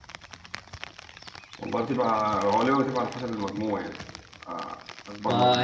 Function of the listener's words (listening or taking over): taking over